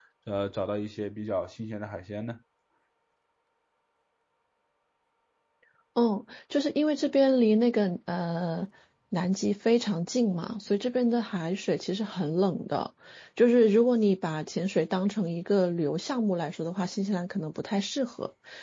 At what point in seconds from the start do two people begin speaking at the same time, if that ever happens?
none

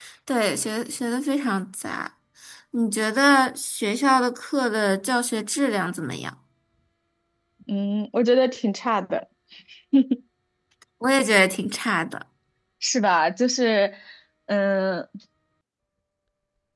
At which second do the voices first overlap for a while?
none

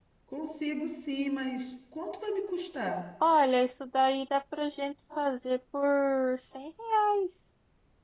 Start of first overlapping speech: none

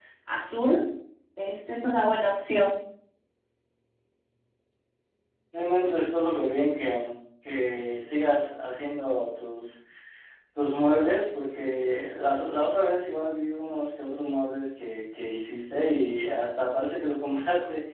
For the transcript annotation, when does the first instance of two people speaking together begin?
none

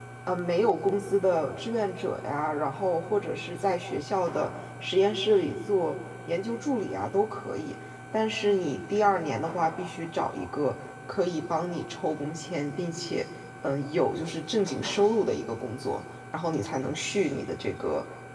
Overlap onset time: none

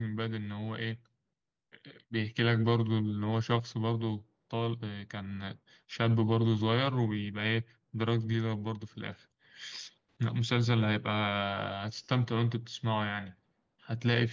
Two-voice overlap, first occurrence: none

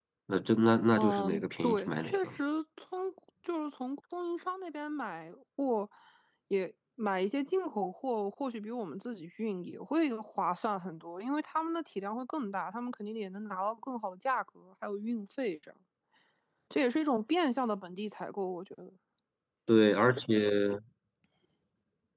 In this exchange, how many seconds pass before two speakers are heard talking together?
1.0 s

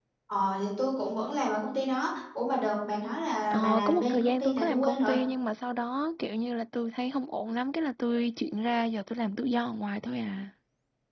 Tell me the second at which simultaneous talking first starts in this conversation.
3.5 s

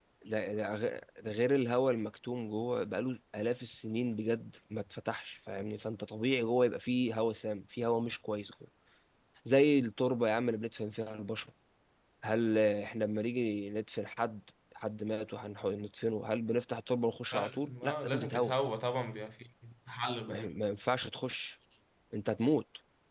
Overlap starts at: 17.3 s

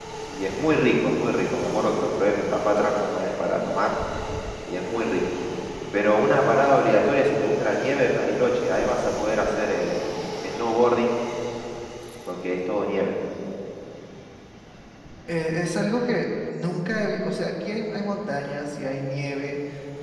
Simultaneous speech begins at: none

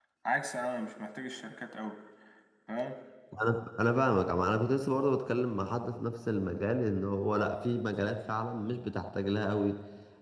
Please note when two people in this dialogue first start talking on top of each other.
none

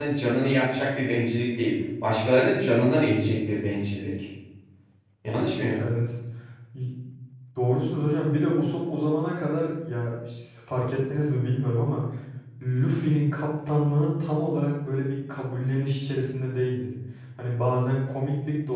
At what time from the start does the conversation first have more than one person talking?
none

